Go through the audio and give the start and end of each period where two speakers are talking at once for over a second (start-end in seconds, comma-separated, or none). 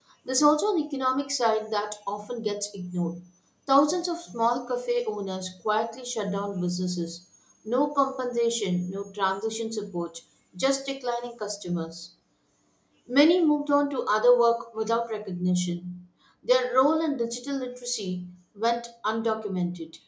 none